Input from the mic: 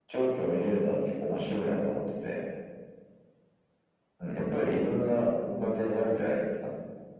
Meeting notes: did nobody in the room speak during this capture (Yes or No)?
Yes